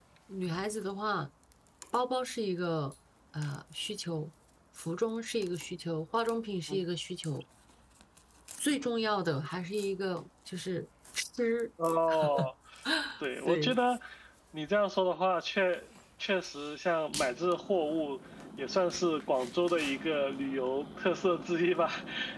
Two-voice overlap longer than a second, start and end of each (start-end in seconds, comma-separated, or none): none